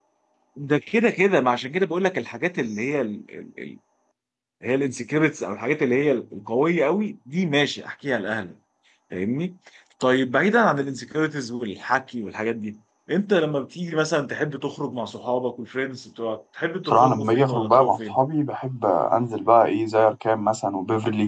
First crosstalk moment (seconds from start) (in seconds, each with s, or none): 16.9 s